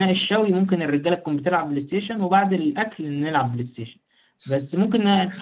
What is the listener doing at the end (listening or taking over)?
listening